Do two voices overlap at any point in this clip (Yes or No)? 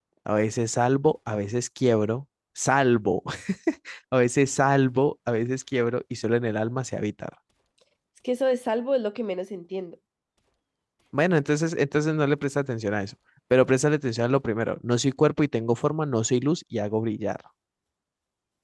No